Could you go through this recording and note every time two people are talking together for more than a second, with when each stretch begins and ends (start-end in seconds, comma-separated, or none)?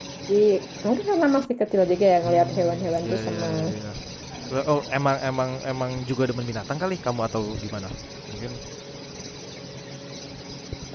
2.2-3.5